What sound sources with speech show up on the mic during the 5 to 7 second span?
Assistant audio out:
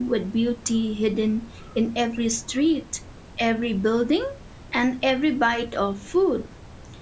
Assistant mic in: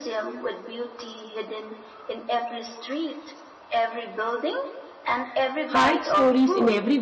both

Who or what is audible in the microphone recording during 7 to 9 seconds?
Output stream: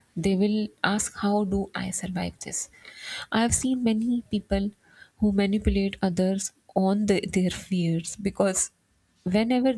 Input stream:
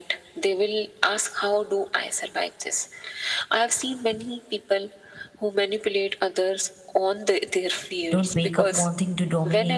both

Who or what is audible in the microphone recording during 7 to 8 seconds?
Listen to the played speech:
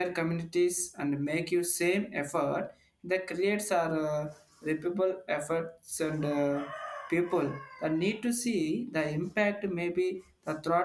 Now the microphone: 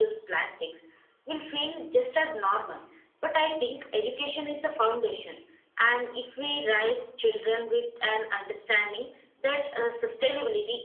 user only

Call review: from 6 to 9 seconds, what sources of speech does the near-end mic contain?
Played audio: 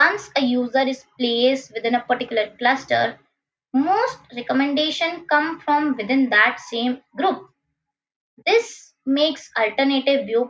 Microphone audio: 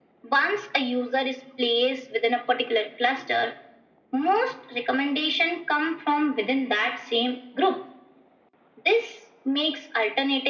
echo only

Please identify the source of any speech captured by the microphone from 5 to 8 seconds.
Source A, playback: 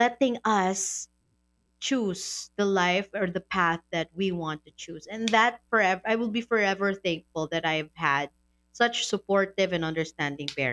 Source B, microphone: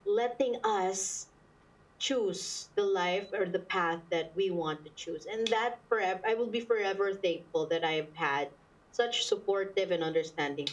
echo only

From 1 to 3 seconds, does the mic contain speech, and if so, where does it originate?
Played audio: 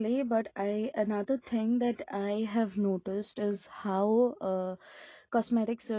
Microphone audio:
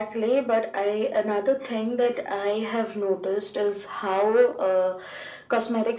echo only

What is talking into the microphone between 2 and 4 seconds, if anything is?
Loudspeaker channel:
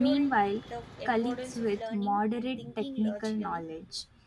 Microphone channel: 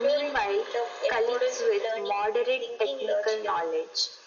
echo only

